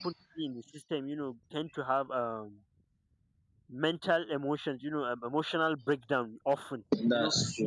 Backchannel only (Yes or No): Yes